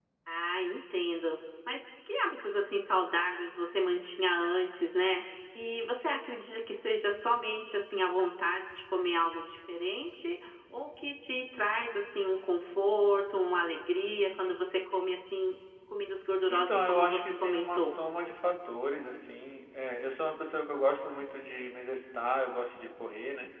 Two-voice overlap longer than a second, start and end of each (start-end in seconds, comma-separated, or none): 16.5-18.0